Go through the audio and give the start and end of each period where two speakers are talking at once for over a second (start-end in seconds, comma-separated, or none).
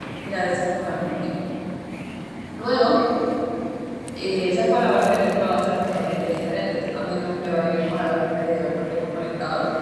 none